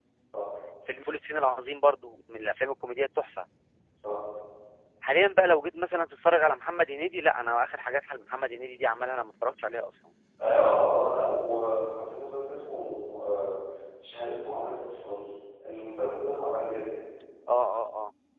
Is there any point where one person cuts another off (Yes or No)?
No